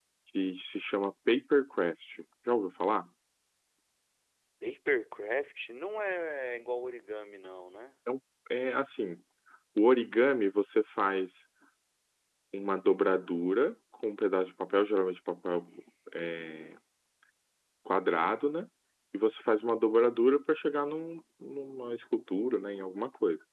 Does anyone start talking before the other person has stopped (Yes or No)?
No